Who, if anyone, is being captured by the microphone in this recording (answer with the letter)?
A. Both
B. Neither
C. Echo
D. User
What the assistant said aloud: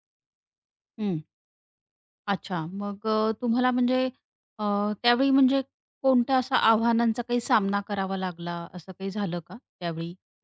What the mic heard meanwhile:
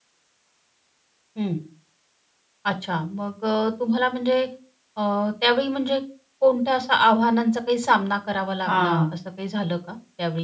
A